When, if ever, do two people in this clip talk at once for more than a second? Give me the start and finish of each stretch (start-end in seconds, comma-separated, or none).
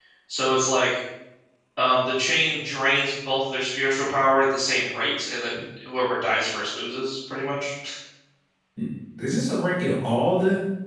none